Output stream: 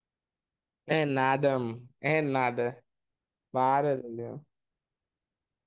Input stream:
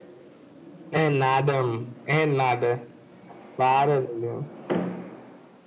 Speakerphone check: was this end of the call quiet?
Yes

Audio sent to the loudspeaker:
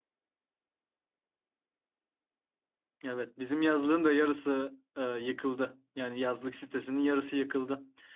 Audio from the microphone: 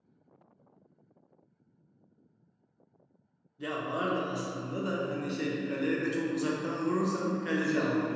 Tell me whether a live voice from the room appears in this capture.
Yes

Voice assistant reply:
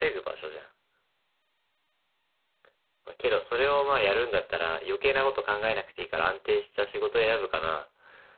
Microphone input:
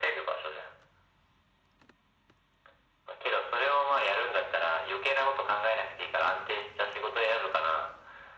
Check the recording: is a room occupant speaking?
No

